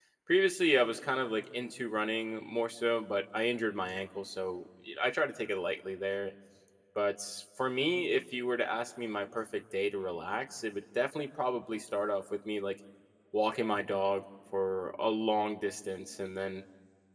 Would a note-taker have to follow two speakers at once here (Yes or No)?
No